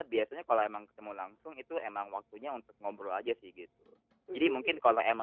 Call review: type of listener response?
listening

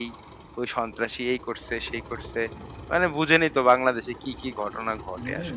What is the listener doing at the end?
taking over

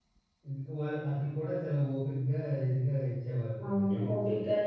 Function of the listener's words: taking over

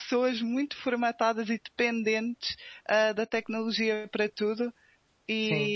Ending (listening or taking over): listening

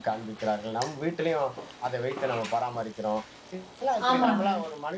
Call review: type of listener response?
listening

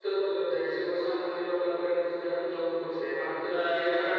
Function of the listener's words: listening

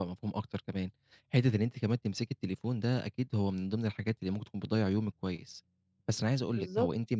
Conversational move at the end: listening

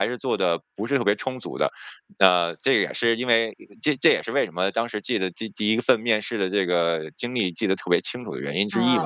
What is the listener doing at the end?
taking over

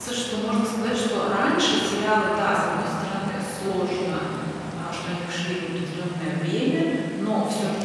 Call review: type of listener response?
listening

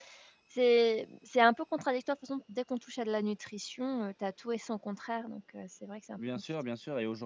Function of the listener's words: taking over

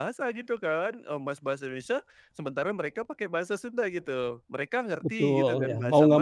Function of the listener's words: taking over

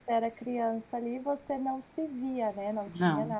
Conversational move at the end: listening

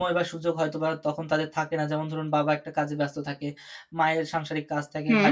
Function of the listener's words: listening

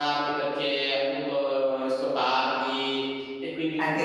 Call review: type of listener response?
taking over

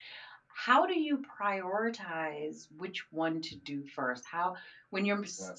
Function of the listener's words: listening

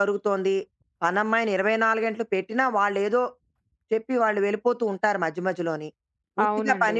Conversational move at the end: listening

